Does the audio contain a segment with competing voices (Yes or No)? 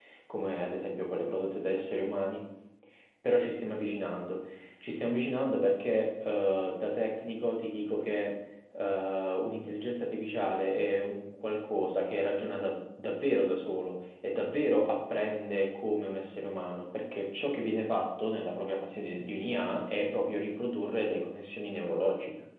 No